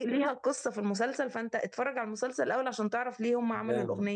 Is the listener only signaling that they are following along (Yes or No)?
No